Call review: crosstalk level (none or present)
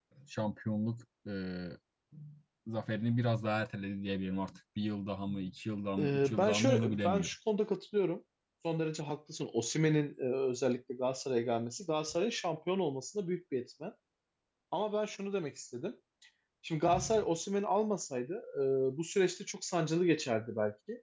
present